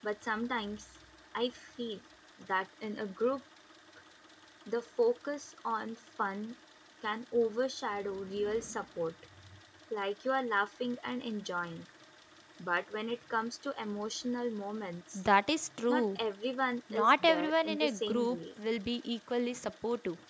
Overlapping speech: Yes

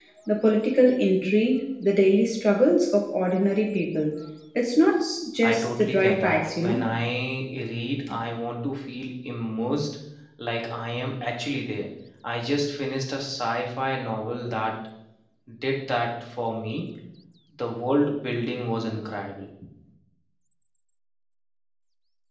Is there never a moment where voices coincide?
No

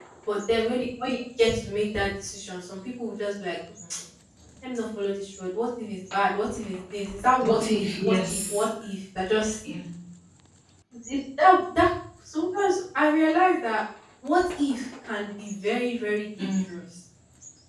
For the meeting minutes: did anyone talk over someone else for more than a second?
Yes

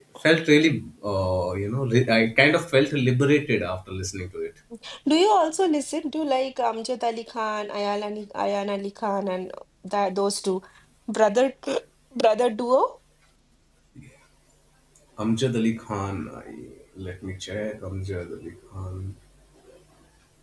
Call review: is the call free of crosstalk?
Yes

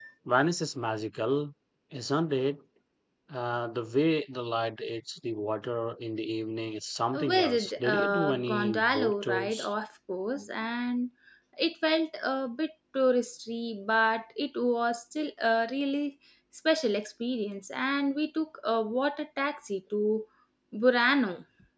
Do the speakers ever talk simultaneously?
Yes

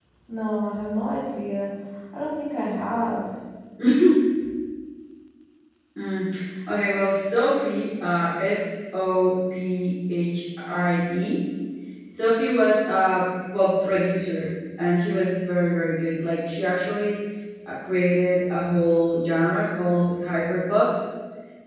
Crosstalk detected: No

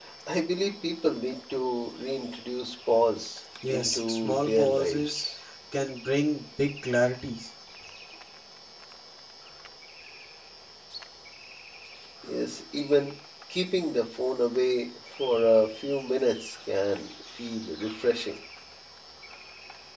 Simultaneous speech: Yes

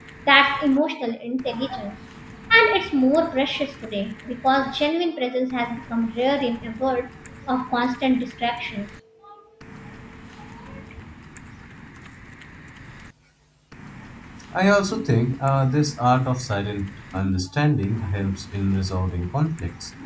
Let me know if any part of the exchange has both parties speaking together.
No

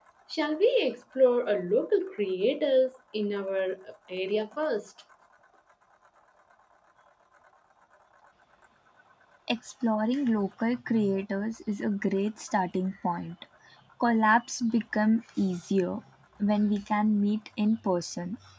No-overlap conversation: Yes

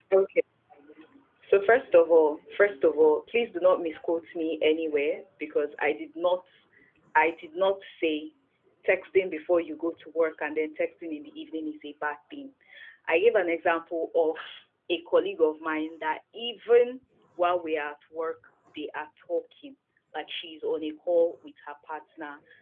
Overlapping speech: No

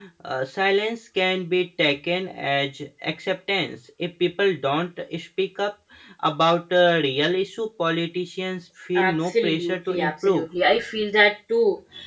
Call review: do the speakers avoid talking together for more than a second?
No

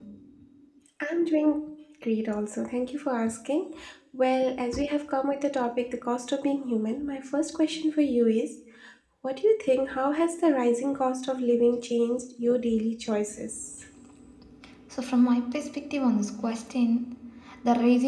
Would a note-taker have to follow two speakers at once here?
No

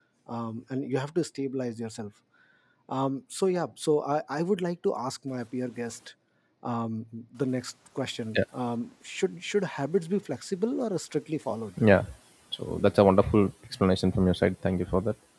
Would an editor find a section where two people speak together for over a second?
No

